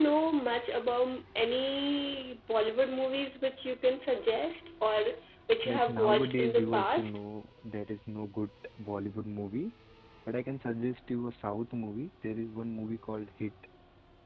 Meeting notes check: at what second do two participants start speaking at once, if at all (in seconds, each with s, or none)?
5.7 s